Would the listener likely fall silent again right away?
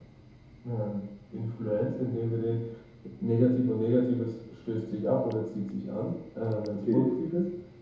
Yes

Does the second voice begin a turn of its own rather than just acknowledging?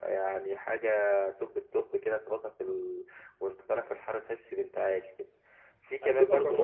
Yes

